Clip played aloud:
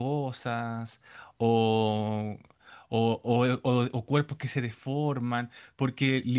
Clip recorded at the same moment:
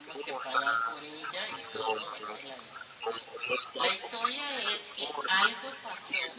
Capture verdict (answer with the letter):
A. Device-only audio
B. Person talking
B